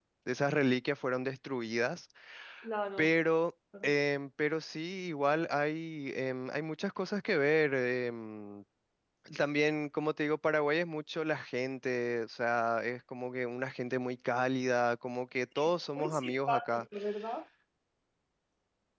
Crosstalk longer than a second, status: present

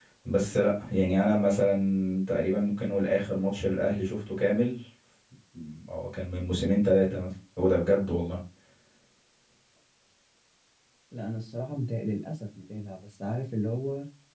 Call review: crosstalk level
none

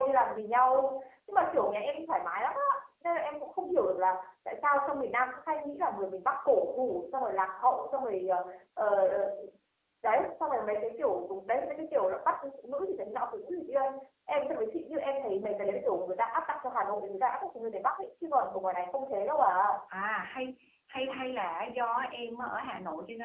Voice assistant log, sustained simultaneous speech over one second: none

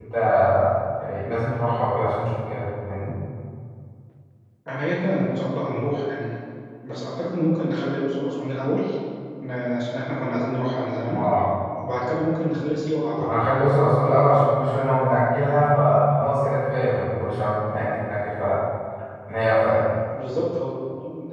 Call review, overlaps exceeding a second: none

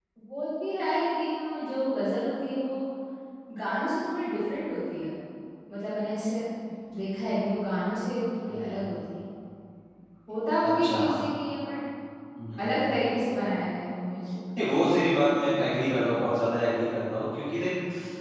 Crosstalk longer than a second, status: none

